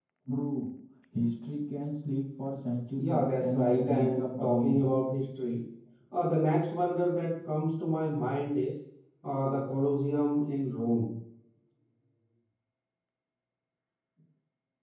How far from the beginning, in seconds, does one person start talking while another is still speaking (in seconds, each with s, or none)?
2.9 s